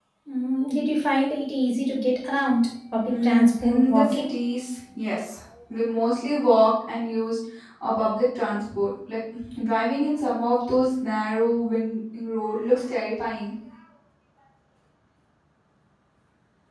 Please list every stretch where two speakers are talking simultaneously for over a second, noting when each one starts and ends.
3.1-4.3

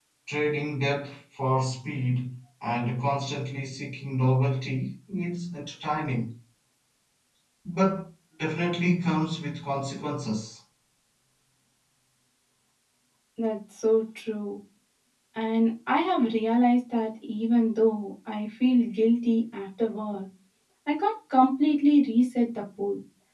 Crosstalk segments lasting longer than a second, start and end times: none

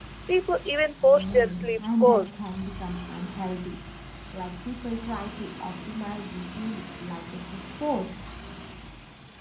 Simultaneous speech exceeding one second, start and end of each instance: 1.0-2.5

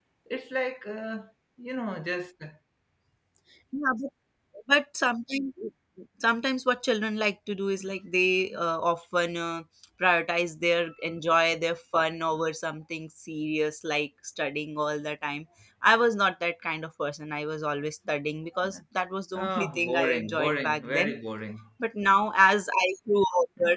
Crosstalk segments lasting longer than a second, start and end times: 19.3-21.1

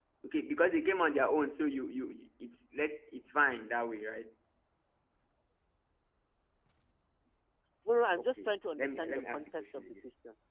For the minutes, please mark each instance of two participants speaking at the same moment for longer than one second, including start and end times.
8.2-9.9

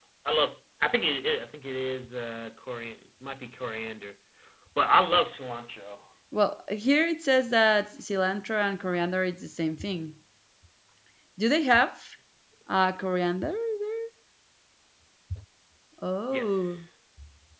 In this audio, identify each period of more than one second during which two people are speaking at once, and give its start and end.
none

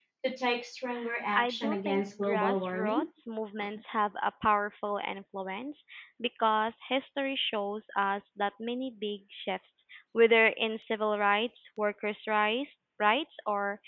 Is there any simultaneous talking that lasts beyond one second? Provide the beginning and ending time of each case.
1.4-3.0

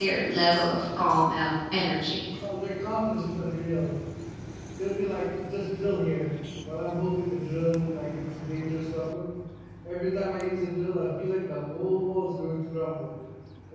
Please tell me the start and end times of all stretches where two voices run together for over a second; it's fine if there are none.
none

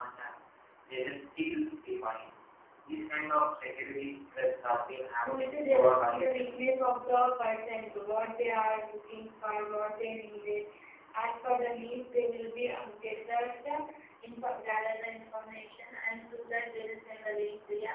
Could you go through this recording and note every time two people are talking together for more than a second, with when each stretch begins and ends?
5.2-6.5

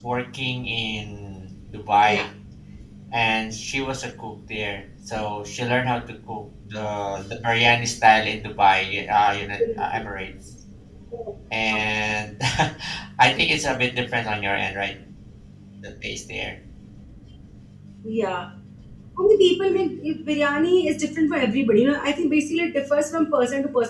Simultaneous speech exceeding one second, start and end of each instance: none

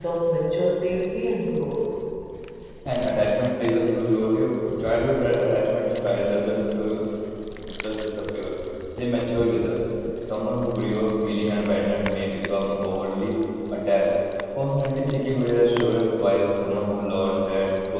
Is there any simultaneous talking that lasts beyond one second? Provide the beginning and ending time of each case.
none

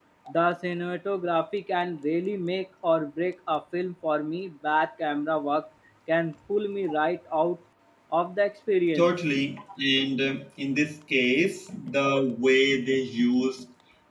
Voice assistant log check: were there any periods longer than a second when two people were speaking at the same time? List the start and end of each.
none

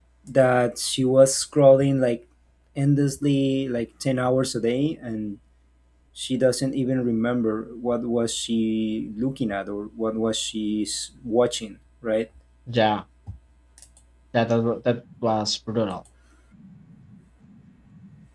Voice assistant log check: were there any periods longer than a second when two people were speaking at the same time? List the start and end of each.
none

